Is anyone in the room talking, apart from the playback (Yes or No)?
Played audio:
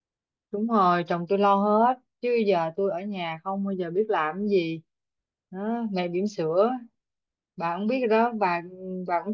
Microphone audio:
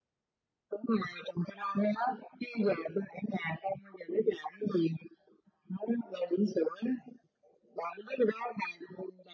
No